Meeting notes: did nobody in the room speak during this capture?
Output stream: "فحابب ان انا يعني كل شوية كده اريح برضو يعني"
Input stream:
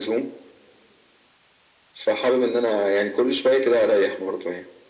Yes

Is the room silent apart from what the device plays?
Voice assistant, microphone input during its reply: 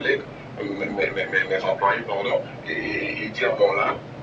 Yes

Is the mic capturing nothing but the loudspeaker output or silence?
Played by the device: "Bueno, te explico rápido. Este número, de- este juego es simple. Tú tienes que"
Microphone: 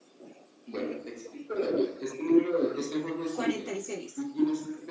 No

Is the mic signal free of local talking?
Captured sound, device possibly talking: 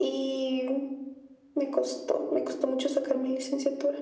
Yes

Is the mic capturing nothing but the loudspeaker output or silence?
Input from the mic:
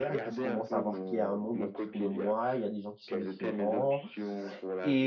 No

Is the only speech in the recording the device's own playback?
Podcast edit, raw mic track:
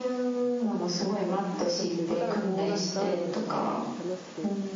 No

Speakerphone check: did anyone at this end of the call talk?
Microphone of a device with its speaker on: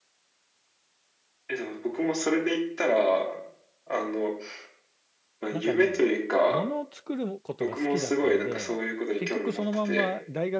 Yes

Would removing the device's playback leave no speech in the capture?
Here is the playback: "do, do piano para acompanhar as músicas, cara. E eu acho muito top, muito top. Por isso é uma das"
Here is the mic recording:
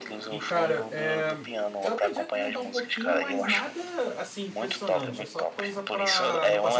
No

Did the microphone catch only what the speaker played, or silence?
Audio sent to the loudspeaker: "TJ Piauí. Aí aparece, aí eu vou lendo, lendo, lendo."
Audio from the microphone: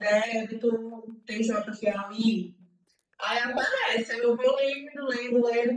Yes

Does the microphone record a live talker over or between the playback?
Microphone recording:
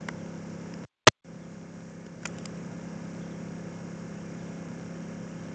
No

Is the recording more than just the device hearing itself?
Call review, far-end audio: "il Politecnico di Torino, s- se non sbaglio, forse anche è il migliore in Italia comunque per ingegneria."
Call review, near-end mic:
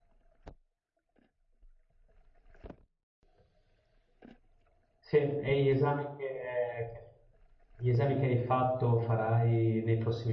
Yes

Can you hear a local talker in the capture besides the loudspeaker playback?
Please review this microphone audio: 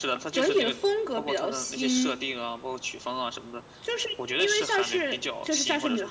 No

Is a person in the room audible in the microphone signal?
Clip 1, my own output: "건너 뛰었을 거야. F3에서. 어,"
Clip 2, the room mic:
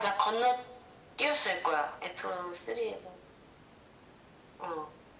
No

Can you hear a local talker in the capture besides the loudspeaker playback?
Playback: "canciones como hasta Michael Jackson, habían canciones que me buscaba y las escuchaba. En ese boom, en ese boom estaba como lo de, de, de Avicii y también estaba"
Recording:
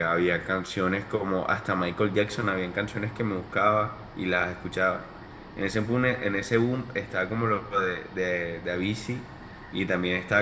No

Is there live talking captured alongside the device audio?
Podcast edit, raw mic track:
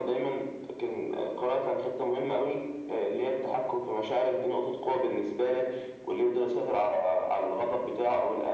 No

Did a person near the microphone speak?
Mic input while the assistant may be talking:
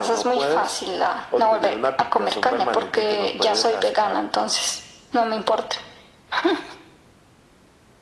No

